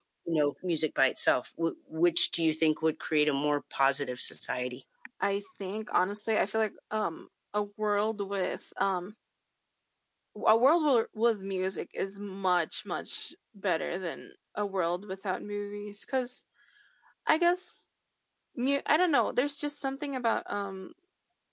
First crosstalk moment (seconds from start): none

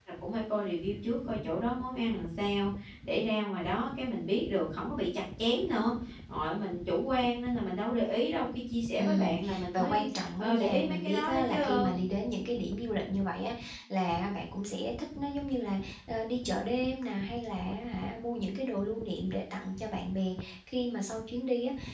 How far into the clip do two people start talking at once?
8.9 s

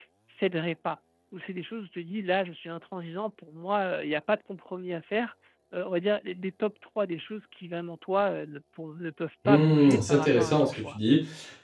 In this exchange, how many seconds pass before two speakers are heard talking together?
9.4 s

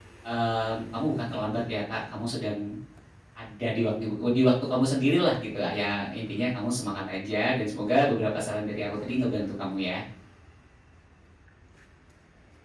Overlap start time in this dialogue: none

